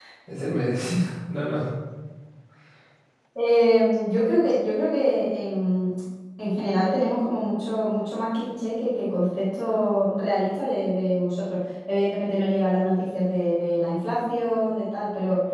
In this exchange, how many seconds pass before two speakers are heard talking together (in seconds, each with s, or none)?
none